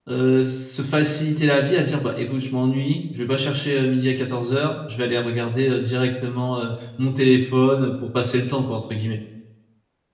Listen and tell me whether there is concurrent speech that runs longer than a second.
No

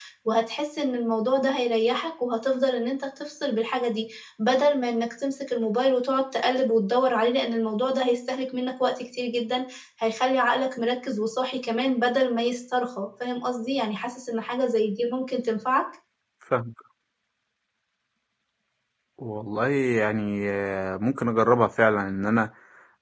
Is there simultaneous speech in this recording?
No

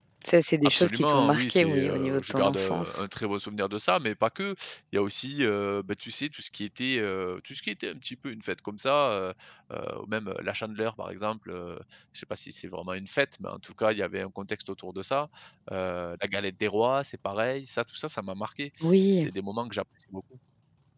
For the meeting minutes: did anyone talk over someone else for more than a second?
Yes, from 0.7 s

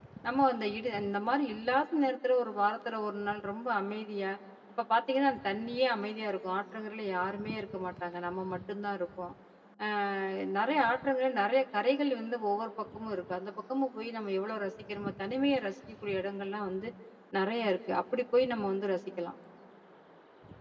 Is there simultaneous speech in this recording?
No

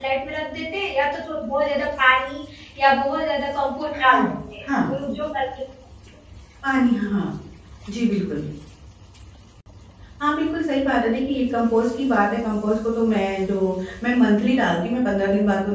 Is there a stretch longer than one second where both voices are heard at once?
No

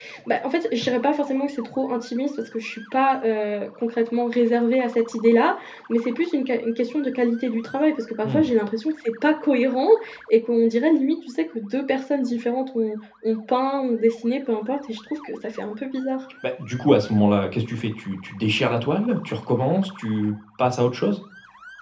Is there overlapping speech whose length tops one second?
No

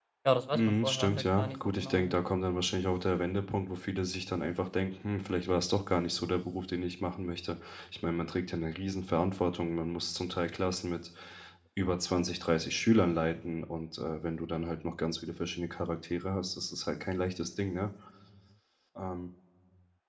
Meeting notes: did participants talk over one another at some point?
Yes, from 0.5 s

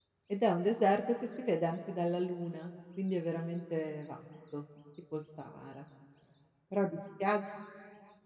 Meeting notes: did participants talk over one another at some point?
No

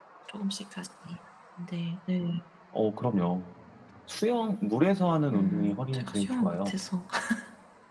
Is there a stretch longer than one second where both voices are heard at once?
Yes, from 5.3 s

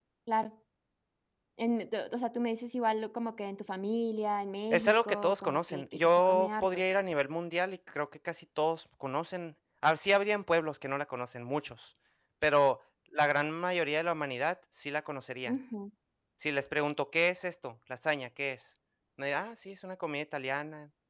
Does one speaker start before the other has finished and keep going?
Yes, from 4.7 s

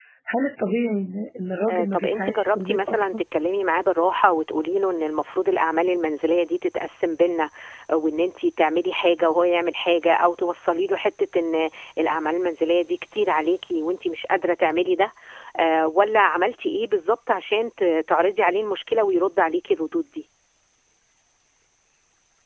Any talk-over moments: Yes, from 1.7 s

